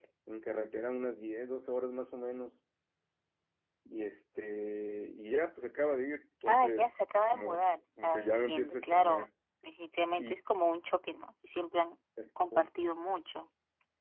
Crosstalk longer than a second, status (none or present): present